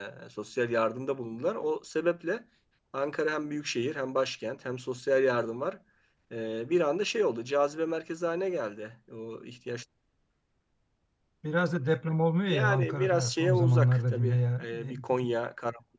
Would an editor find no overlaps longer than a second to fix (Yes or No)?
No